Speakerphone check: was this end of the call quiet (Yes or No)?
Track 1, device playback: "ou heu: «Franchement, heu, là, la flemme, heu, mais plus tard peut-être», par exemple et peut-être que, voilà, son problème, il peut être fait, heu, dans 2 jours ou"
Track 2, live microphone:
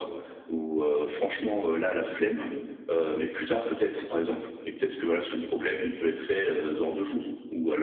Yes